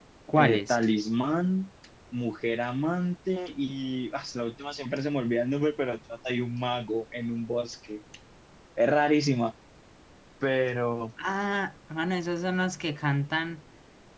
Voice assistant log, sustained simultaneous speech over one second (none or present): none